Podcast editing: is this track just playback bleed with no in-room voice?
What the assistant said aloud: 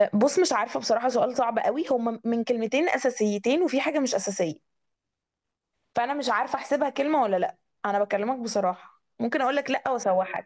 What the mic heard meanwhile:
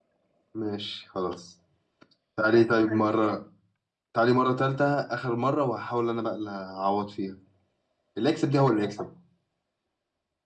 No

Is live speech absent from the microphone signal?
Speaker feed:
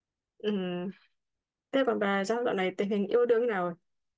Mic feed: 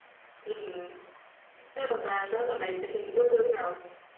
No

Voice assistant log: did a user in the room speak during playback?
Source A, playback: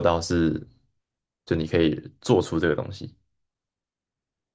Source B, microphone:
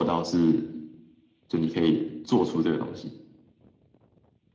No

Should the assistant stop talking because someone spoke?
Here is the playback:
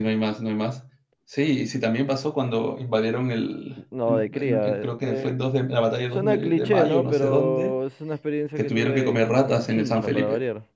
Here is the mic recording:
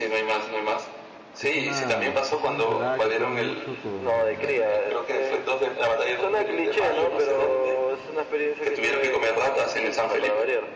Yes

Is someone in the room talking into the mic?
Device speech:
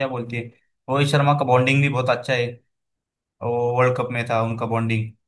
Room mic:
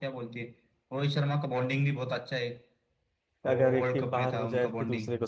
Yes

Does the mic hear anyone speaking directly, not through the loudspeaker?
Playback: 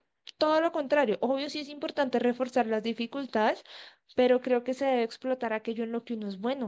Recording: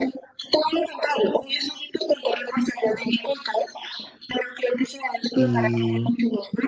Yes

